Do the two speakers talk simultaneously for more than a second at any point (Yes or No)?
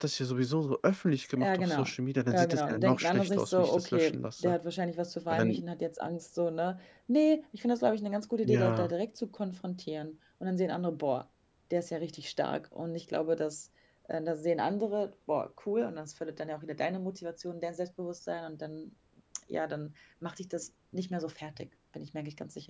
Yes